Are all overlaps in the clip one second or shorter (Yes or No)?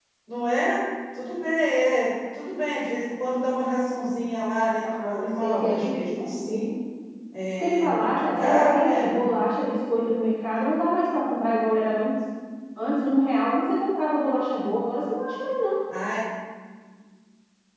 No